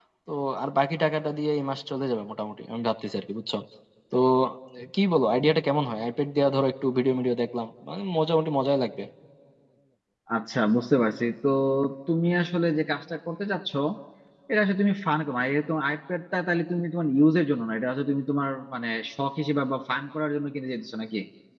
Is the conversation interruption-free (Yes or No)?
Yes